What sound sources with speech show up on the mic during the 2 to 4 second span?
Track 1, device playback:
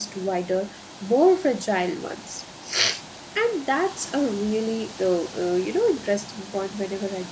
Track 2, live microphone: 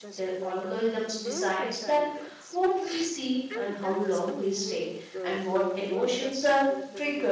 both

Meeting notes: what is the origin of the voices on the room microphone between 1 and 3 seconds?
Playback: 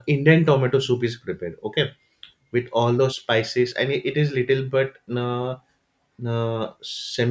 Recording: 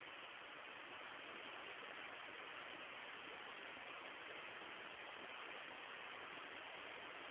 neither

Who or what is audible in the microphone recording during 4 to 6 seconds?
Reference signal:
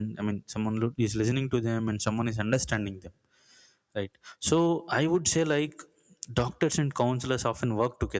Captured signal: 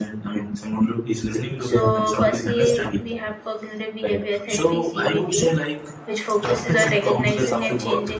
both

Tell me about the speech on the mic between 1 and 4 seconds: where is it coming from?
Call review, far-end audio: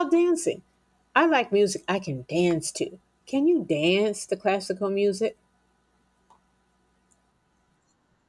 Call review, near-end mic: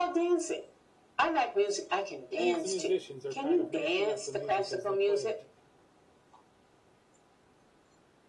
both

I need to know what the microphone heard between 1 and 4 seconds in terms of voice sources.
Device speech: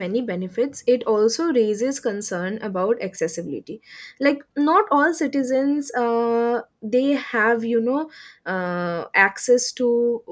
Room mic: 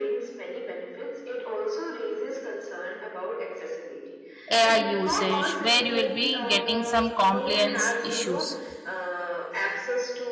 echo only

